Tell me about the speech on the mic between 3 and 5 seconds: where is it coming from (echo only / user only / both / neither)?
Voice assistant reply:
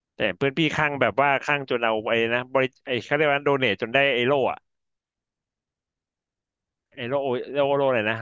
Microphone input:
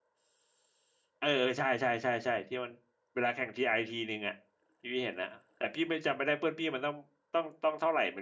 user only